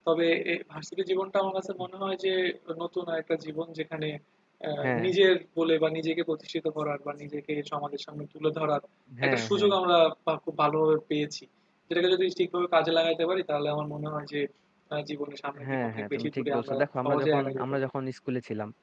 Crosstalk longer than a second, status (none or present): present